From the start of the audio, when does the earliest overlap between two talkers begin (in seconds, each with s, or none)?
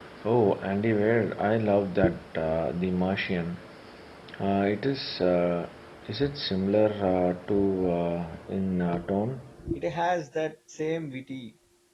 none